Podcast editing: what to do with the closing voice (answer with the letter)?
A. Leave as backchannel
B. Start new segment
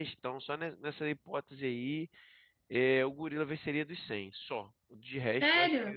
B